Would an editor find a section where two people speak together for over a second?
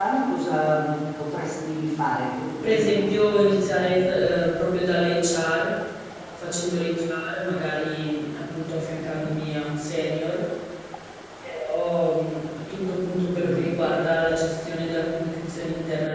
Yes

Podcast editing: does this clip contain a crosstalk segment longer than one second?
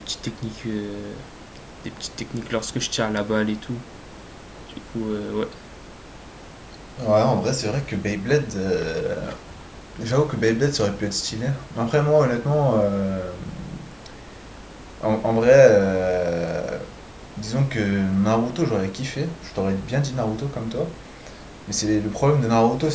No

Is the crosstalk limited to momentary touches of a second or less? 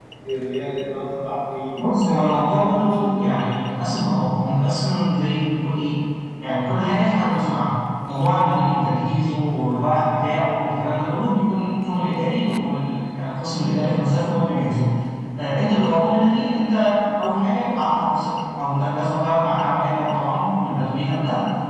No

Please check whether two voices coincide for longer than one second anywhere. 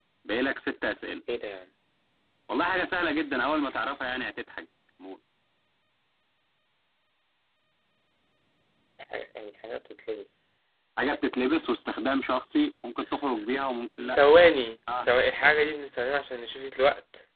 No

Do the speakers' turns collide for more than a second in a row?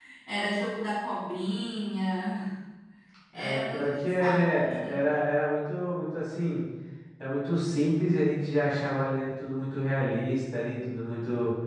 Yes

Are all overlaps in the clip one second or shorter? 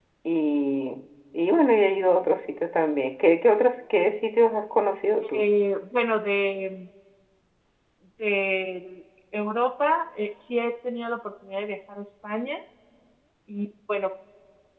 Yes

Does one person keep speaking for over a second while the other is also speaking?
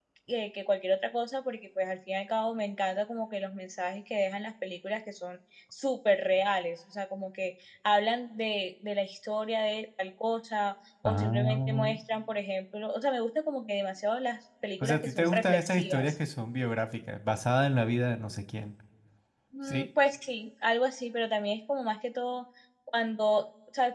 Yes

